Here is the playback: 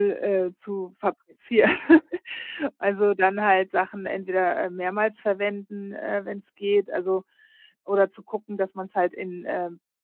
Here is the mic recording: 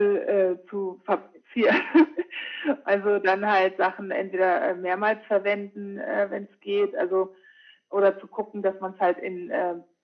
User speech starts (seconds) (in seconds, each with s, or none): none